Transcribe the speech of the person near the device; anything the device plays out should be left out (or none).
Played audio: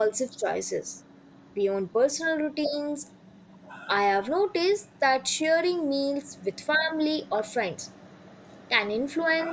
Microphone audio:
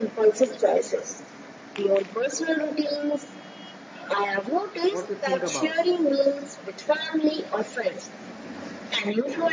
What do you think about it?